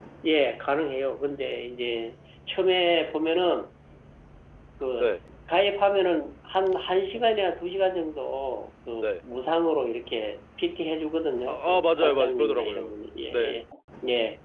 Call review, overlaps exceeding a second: present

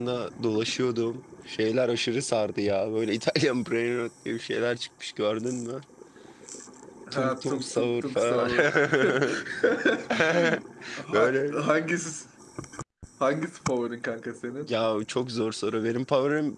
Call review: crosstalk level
present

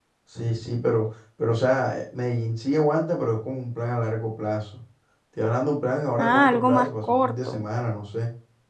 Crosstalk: present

